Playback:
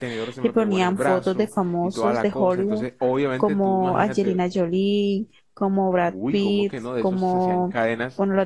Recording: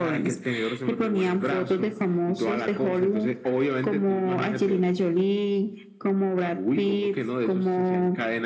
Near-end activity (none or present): none